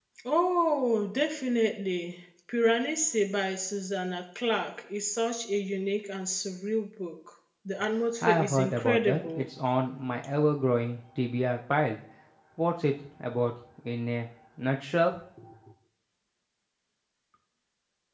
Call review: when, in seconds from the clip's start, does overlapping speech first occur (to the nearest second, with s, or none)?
8 s